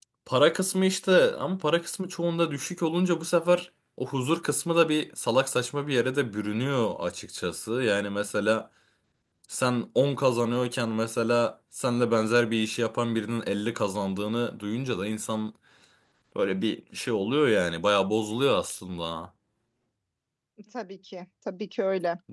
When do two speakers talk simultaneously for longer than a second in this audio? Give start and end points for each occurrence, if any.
none

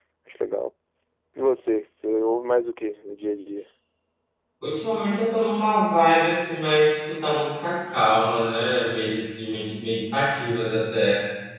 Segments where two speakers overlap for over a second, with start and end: none

